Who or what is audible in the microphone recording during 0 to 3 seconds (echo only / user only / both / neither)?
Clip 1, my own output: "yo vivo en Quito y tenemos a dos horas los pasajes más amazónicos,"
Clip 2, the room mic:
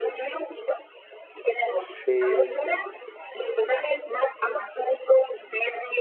both